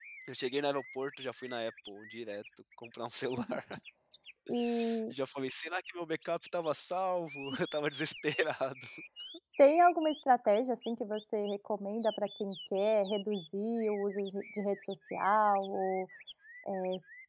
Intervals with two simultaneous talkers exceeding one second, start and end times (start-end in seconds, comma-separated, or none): none